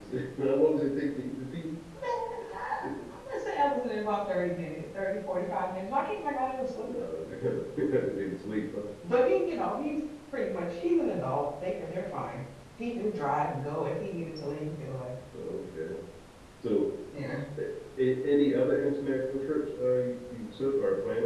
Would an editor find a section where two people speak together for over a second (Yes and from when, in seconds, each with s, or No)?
No